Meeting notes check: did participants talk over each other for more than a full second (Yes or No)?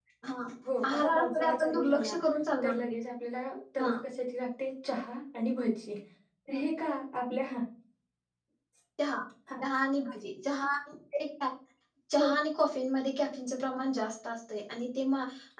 Yes